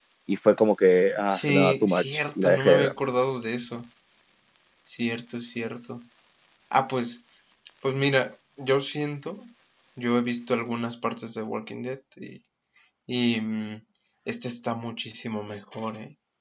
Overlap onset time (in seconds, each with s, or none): 1.3 s